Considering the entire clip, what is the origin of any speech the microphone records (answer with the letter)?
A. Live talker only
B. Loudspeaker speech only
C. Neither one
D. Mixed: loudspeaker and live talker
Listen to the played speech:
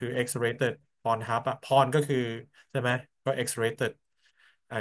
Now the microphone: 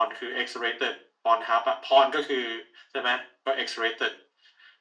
B